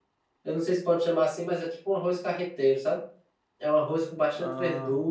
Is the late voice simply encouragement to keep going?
Yes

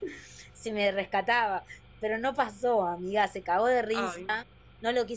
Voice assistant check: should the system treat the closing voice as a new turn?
No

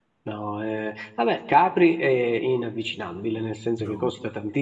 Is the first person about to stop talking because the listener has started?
No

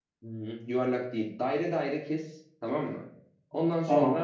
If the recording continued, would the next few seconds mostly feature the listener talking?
No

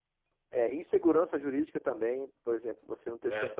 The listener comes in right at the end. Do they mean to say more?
No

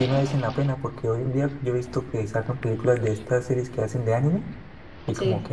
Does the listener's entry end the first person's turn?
No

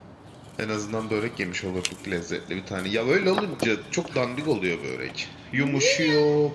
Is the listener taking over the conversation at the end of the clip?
No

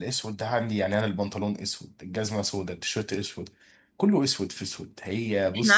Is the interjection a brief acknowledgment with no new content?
No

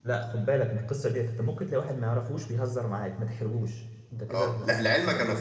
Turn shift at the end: Yes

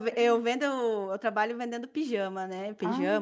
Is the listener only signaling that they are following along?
Yes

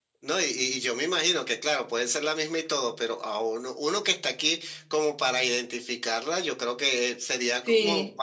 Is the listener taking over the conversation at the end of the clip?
No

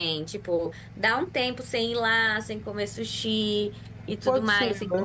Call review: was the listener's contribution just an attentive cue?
No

